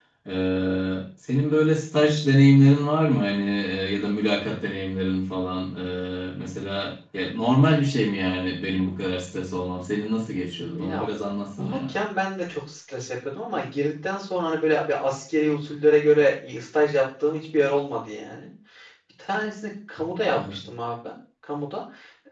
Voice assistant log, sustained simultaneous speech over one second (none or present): none